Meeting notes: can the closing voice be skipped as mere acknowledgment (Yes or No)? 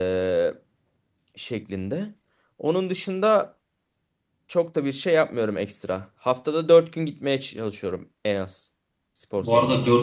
No